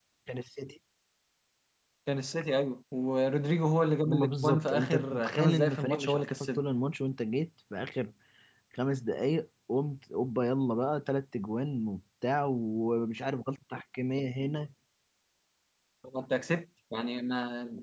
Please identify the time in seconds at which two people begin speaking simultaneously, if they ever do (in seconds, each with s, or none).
4.0 s